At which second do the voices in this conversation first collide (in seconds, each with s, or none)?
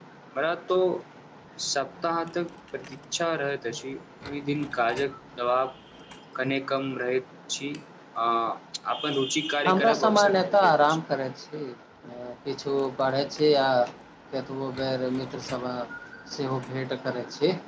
9.6 s